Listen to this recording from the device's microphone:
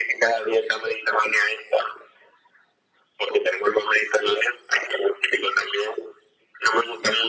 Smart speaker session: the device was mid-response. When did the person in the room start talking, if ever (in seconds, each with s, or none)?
none